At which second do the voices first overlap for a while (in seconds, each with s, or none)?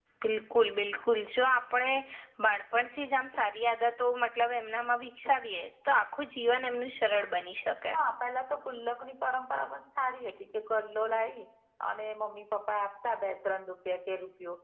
none